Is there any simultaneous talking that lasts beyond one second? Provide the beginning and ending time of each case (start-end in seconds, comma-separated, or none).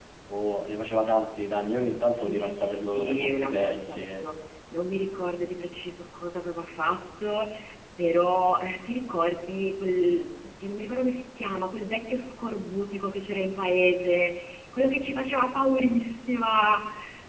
2.2-4.3